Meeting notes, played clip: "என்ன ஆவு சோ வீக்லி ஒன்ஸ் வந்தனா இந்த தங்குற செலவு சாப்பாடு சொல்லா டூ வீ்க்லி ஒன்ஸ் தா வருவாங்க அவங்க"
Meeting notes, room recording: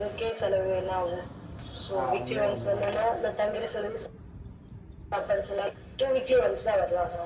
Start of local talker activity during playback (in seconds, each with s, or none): 2.0 s